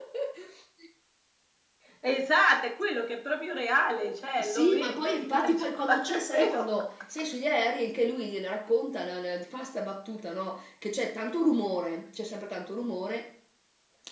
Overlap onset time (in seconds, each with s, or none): 4.4 s